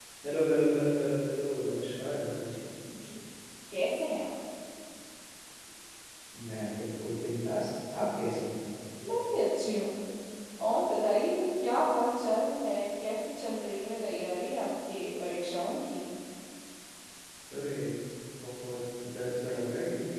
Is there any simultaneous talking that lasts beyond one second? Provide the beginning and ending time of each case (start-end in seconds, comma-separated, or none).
none